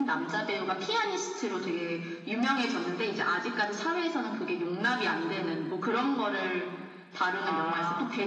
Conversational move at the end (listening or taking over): listening